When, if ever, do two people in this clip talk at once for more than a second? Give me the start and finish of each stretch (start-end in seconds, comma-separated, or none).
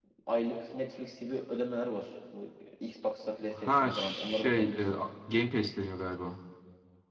3.5-4.9